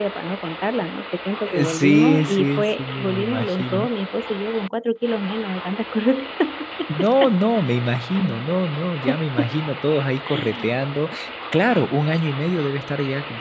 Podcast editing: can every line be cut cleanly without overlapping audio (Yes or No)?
No